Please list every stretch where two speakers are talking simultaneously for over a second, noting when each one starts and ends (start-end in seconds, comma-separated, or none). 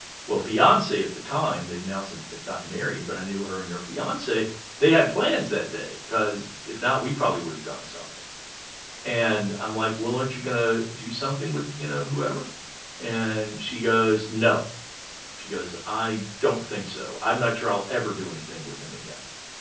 none